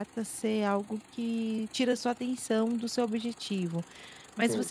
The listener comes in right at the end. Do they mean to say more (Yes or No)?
No